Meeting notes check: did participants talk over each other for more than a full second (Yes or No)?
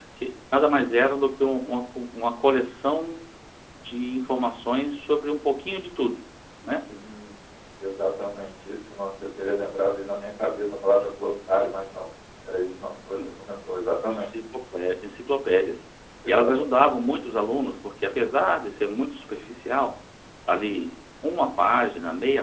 No